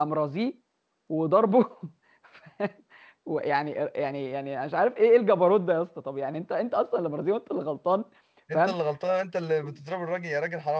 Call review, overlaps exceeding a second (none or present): none